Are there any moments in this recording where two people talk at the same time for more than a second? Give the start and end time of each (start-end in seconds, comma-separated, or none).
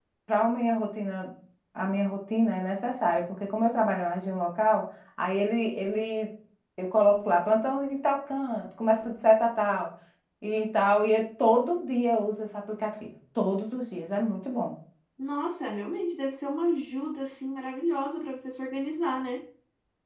none